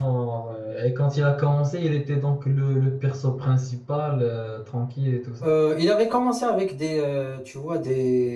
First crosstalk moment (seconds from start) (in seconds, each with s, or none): none